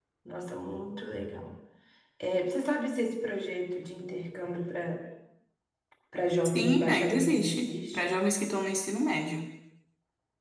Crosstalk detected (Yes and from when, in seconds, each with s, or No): Yes, from 6.5 s